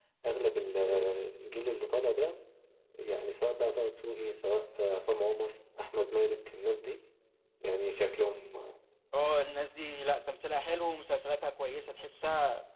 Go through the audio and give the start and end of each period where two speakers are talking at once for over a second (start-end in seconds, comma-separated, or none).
none